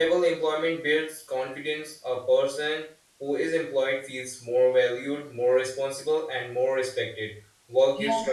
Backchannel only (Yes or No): Yes